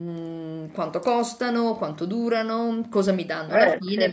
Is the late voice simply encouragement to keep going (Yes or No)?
Yes